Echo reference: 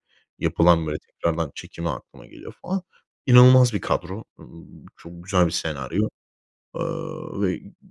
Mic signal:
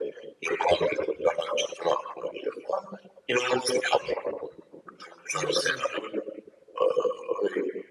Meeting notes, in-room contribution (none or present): present